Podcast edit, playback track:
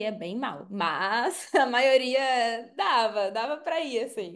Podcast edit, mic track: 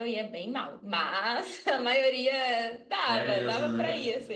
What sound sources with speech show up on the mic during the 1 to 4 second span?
both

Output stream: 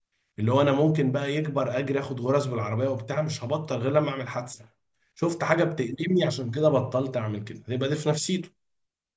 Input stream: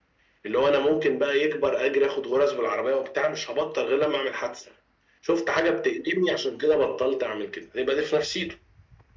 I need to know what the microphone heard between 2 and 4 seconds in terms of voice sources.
echo only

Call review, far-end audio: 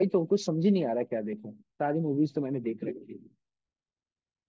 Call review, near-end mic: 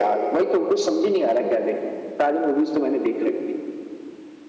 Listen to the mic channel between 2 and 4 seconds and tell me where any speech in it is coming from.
echo only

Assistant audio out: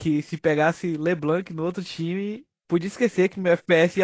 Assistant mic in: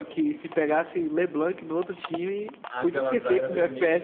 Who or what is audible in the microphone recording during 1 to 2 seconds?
echo only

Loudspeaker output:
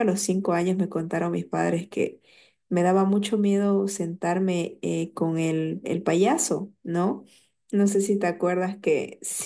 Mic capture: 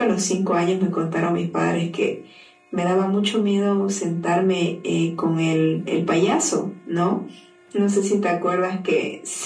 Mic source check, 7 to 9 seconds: echo only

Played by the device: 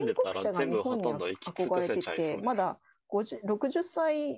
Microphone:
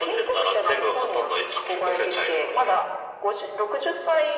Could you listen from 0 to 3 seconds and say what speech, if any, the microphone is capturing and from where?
echo only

